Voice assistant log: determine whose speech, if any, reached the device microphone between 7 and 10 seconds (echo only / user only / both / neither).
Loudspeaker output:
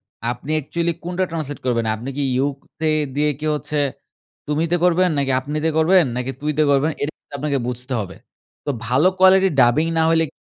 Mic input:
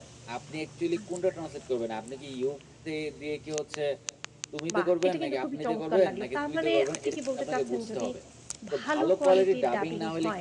both